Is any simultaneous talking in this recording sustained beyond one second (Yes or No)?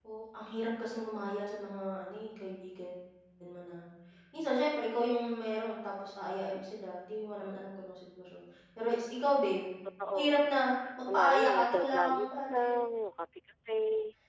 Yes